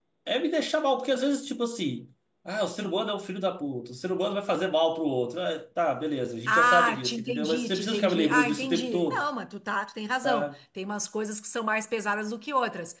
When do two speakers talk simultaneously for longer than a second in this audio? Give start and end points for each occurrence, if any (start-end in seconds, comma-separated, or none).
6.5-9.3